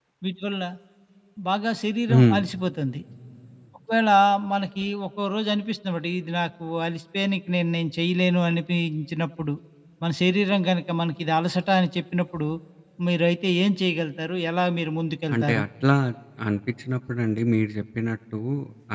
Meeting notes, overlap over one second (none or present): none